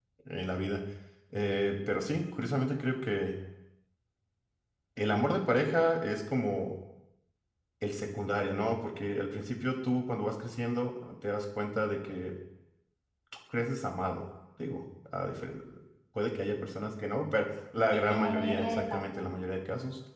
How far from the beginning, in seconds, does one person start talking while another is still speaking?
17.9 s

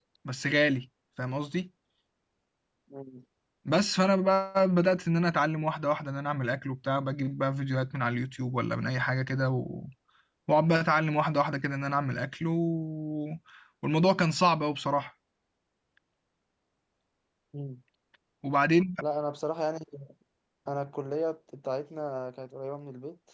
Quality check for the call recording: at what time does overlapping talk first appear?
none

